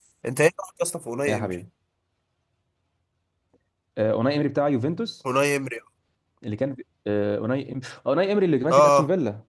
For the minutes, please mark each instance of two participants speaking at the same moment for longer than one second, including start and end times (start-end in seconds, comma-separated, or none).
none